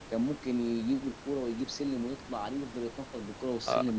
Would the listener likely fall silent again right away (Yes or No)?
No